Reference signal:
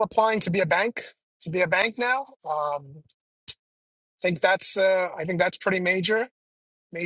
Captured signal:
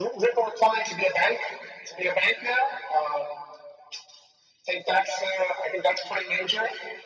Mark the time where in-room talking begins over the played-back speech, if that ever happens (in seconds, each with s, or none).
none